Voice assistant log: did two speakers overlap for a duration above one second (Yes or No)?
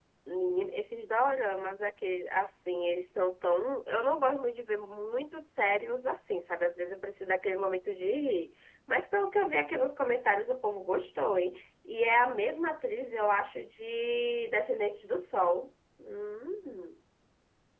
No